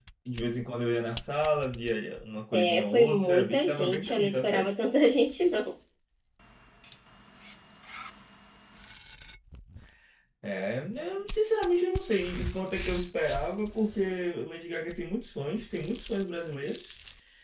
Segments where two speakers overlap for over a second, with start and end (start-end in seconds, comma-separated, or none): 2.5-4.7